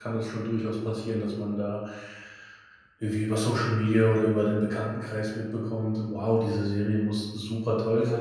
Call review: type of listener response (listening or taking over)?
listening